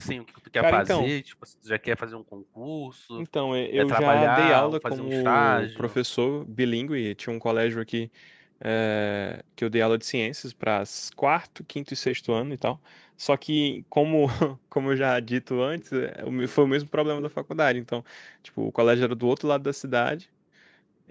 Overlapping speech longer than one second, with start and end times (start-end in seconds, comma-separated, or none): 3.8-5.9